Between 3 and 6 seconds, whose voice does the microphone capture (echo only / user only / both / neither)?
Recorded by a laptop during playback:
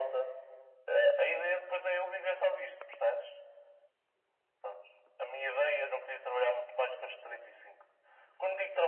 echo only